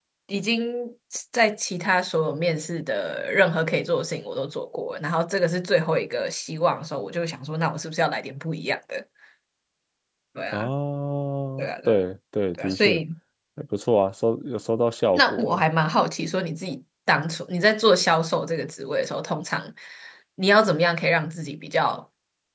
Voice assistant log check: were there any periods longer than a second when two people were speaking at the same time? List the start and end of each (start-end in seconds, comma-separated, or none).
none